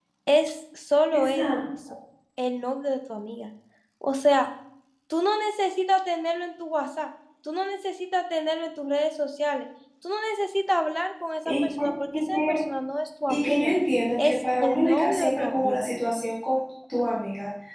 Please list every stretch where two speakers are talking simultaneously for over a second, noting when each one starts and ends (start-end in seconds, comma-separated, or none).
14.2-15.8